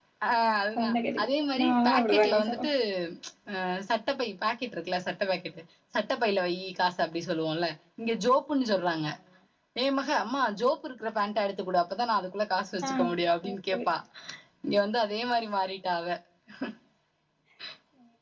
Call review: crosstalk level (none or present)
present